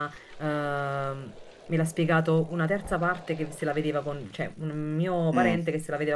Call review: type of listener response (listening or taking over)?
listening